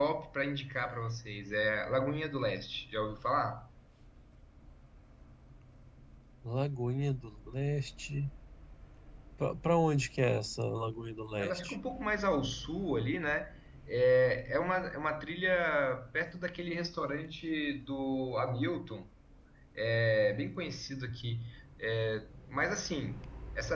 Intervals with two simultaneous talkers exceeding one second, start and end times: none

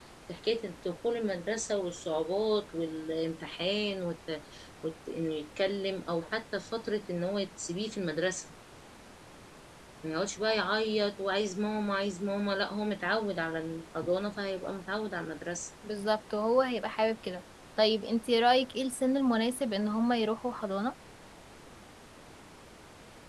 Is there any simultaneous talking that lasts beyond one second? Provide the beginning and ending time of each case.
none

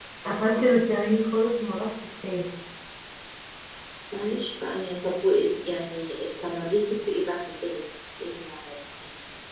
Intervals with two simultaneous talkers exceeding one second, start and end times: none

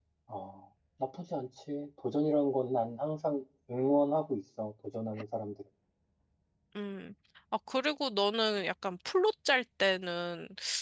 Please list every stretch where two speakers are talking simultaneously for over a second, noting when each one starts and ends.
none

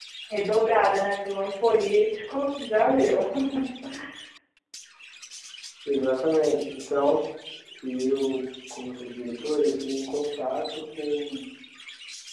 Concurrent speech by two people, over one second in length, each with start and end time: none

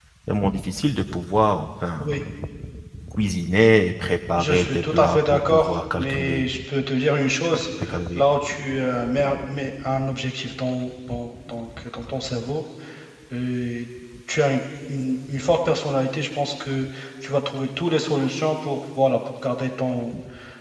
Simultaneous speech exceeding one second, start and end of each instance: 4.4-6.5

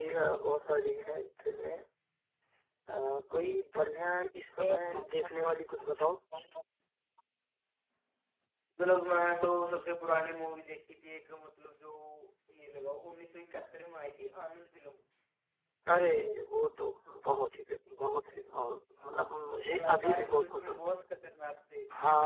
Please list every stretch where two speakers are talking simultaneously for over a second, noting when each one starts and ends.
19.3-20.8

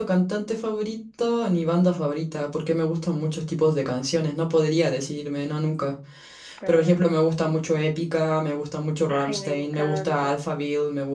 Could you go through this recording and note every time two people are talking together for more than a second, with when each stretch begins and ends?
9.1-10.3

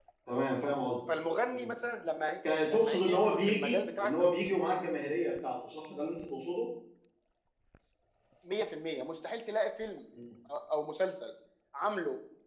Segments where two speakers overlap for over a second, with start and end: 2.7-4.5

